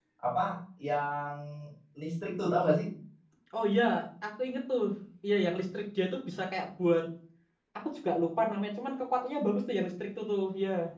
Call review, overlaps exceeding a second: none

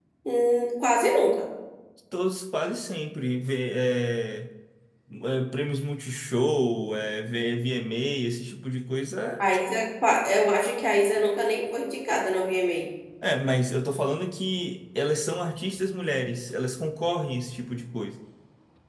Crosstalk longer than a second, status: none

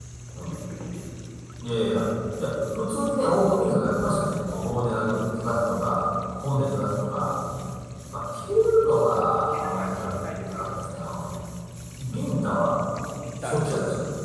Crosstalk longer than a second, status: present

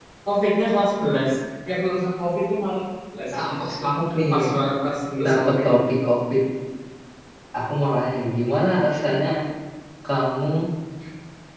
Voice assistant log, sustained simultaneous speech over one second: none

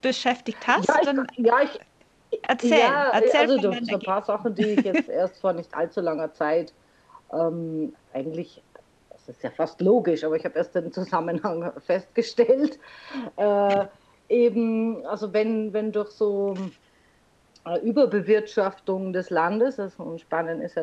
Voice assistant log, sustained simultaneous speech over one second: present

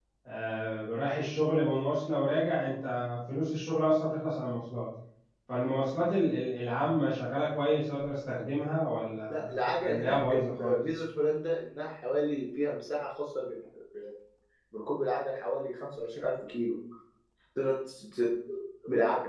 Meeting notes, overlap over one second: present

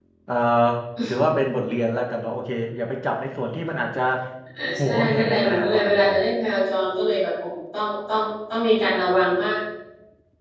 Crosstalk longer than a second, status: present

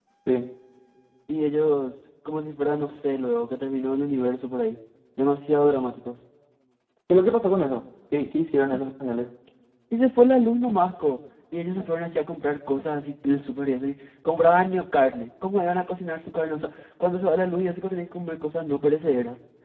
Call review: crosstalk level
none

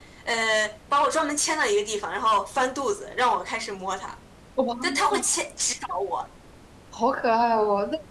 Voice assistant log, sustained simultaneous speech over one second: none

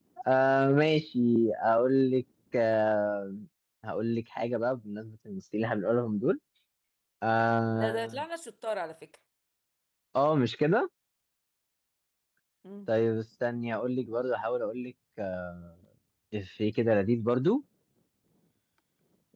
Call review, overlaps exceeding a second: none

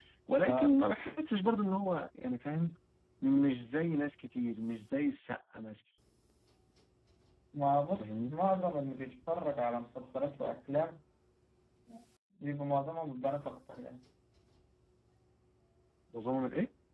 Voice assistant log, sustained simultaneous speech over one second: none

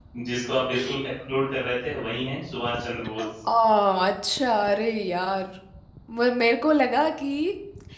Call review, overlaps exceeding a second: none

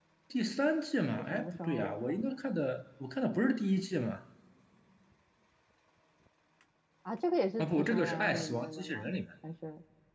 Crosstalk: present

